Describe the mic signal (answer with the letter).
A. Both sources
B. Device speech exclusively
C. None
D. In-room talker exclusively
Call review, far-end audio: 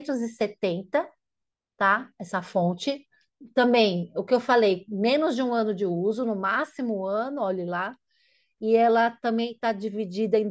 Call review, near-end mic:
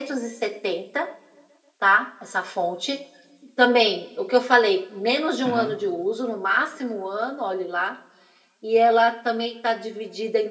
A